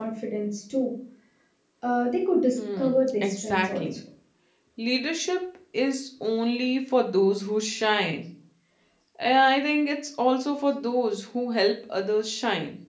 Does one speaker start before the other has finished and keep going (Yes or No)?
Yes